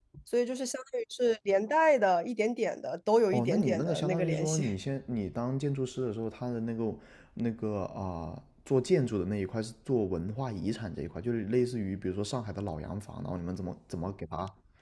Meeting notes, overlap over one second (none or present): present